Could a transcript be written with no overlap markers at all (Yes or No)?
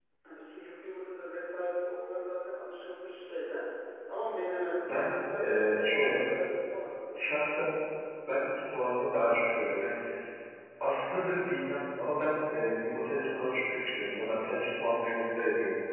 No